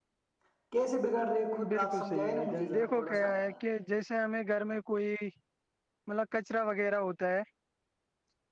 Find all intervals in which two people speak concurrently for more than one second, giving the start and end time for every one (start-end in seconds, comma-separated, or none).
1.7-3.3